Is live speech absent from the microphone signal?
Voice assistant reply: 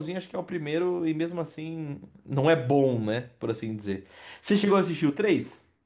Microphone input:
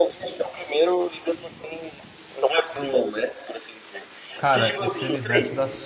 No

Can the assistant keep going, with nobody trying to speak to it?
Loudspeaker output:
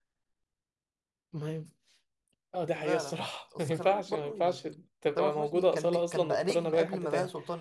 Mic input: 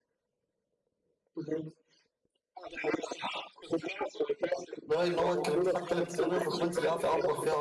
No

